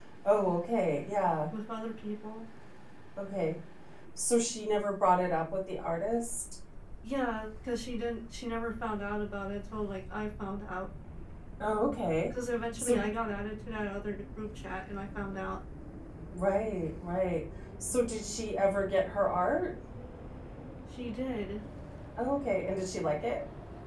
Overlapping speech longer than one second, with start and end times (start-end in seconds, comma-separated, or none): none